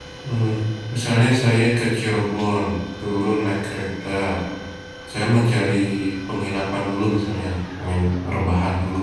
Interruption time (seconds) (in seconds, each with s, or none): none